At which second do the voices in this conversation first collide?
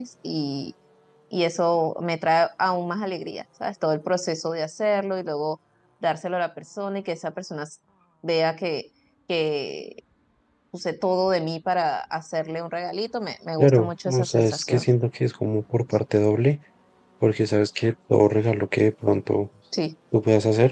14 s

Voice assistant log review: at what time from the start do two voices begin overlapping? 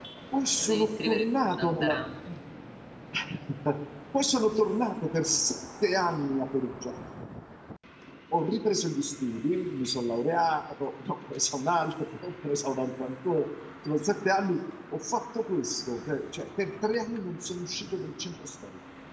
1 s

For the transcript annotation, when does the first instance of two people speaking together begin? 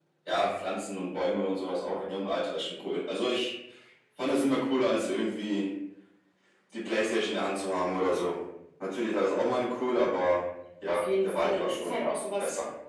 11 s

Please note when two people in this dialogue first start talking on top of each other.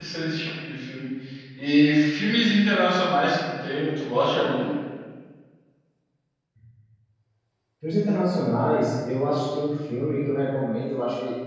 none

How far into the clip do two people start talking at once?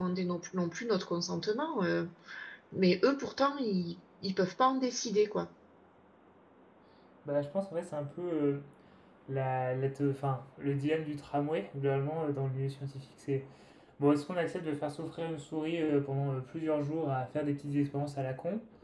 none

